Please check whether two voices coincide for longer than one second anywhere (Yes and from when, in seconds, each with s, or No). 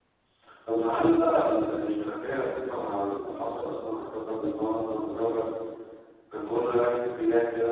No